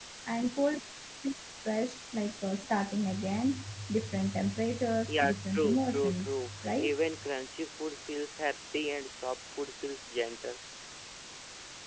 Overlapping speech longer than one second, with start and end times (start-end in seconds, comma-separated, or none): 5.0-7.0